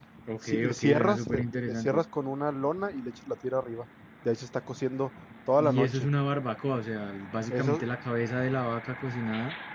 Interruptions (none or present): present